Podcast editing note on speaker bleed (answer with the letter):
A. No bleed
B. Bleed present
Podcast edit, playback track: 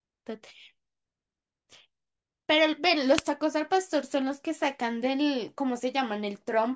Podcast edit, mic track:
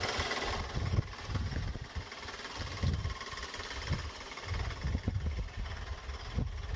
A